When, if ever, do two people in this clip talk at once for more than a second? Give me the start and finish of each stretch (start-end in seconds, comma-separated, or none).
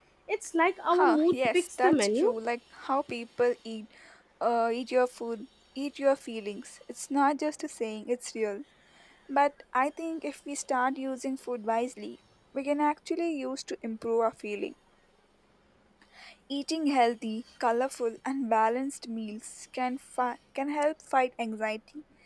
0.9-2.3